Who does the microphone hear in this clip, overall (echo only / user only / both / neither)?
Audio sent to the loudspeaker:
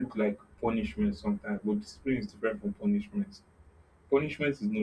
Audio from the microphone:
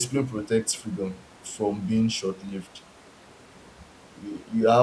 user only